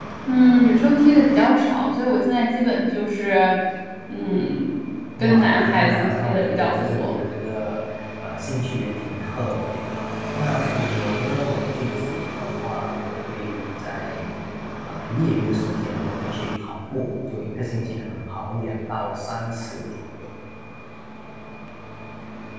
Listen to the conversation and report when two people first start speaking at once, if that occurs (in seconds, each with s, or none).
5.2 s